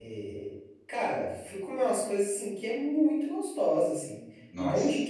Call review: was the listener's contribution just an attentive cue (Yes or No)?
Yes